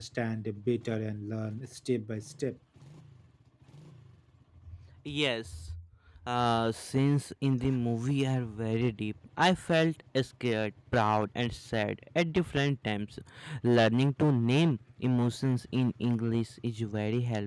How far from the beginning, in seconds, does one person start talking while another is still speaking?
none

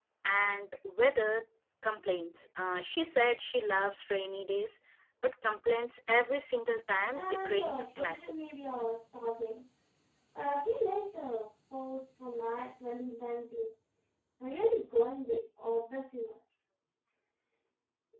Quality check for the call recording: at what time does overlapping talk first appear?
7 s

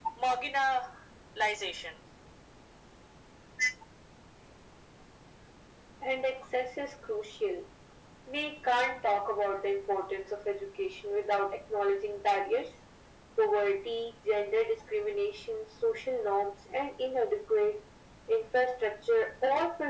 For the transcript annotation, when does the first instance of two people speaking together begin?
none

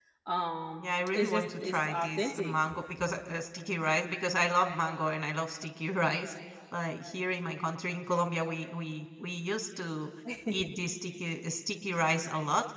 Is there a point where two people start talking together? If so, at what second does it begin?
1 s

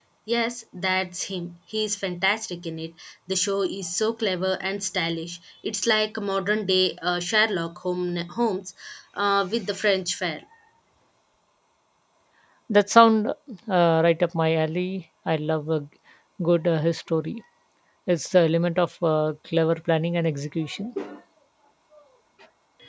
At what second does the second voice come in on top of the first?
none

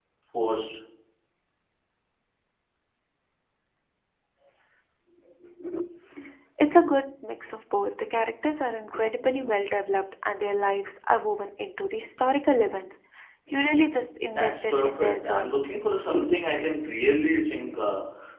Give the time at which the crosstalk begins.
14 s

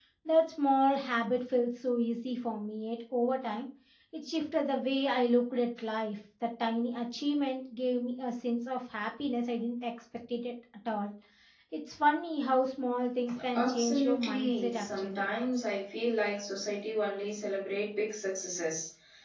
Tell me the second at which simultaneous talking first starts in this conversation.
14 s

